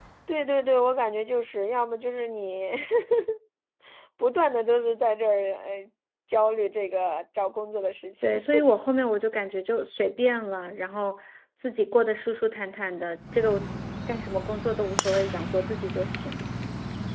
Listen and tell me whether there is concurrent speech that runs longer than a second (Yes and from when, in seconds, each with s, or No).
No